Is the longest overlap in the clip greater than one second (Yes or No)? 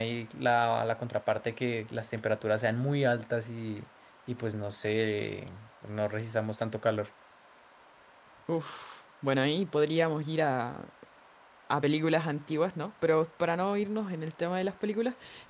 No